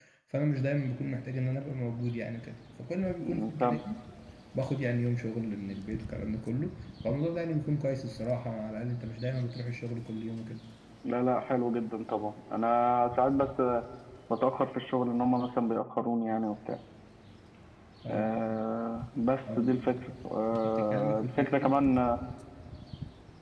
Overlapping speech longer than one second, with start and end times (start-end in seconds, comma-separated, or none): 20.5-21.7